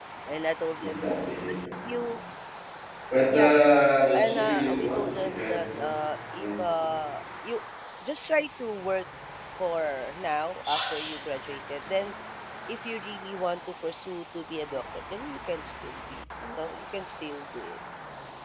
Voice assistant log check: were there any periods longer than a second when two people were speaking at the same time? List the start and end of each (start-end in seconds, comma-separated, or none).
4.1-5.9